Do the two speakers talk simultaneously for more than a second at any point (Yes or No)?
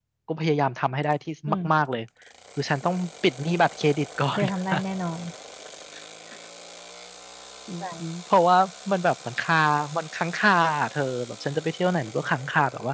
No